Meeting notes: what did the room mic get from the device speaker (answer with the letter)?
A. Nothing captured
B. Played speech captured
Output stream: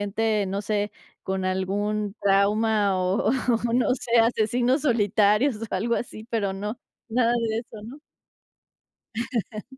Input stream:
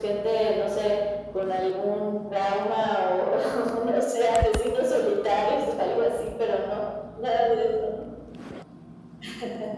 B